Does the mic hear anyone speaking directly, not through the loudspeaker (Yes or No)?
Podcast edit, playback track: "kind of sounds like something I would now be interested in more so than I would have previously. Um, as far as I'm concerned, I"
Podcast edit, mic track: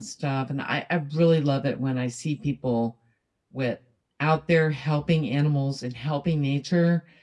Yes